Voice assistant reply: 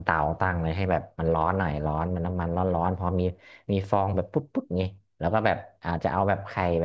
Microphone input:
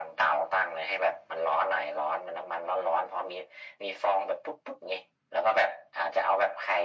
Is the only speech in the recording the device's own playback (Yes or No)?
Yes